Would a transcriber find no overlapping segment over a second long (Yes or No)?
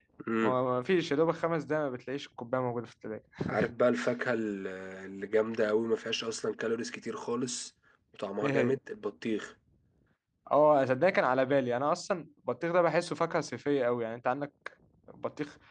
Yes